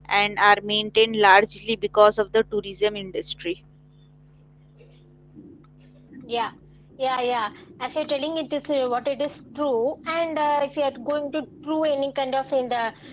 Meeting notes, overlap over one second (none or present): none